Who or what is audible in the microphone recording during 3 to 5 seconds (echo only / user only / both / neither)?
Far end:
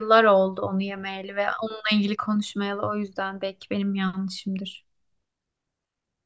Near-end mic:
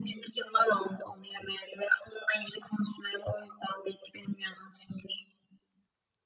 echo only